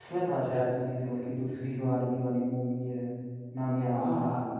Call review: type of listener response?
taking over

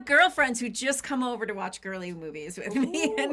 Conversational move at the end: taking over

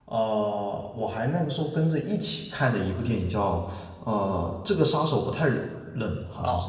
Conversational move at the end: taking over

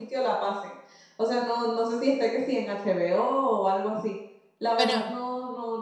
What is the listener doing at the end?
listening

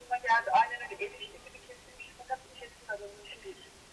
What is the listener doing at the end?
taking over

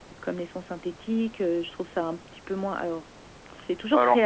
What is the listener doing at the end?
listening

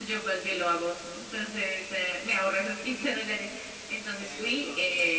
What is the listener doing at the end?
listening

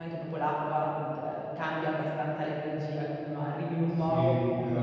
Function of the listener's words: taking over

